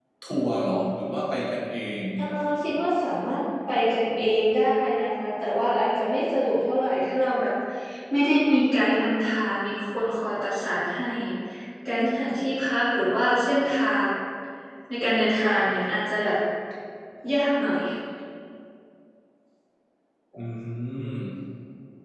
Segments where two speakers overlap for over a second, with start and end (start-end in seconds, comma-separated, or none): none